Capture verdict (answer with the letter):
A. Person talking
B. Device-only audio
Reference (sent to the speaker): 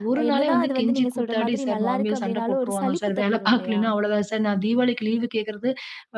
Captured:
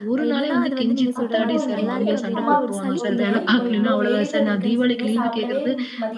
A